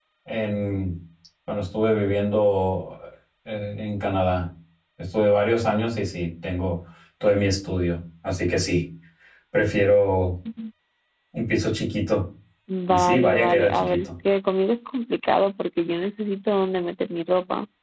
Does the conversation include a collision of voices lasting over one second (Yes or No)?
Yes